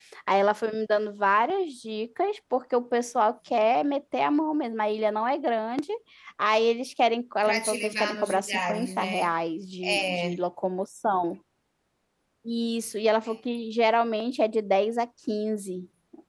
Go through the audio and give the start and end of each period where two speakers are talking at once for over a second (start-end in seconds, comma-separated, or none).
7.4-9.3